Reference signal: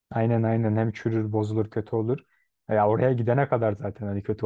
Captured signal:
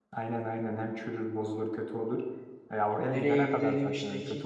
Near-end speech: present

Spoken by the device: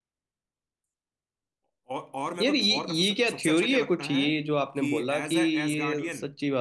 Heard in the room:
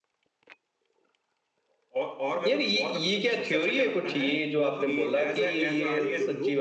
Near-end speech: present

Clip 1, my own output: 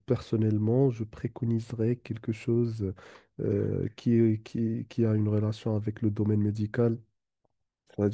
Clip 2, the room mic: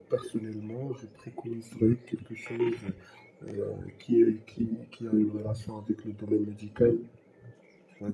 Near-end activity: none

